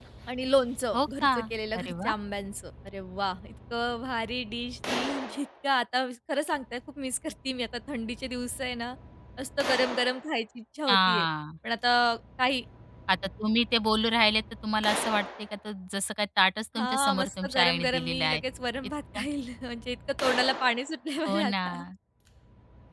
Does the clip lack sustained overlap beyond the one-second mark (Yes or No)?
No